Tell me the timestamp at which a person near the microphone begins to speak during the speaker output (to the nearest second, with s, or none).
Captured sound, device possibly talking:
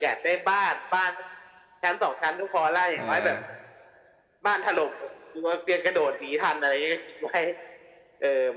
3 s